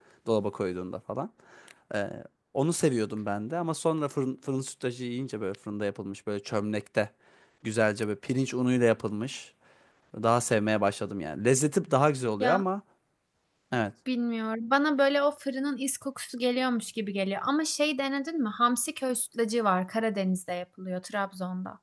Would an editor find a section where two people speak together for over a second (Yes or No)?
No